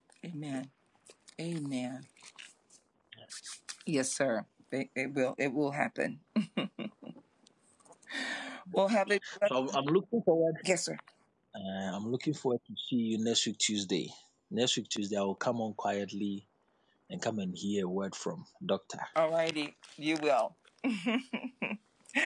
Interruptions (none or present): none